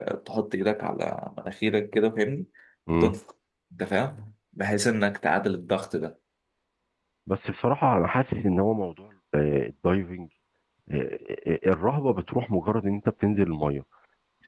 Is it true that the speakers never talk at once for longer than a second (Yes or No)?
Yes